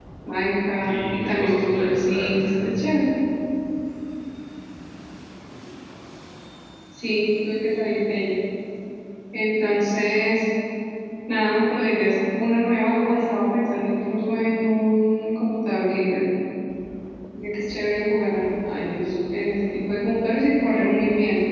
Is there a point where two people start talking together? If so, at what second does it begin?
0.8 s

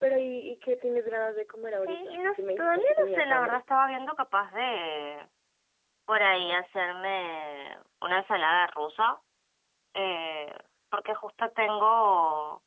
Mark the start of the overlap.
1.7 s

